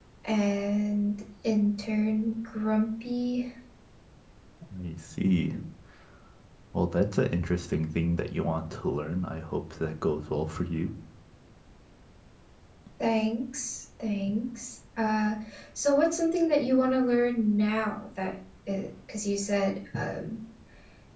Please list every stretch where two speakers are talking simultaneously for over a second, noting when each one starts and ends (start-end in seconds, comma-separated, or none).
none